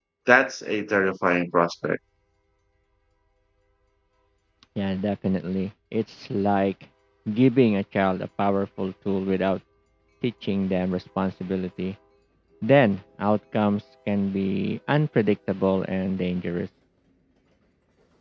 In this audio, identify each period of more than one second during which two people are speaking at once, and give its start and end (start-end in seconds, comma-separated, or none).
none